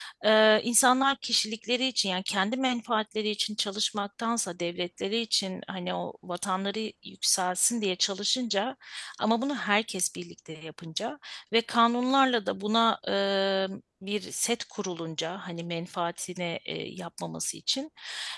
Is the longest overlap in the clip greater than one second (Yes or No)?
No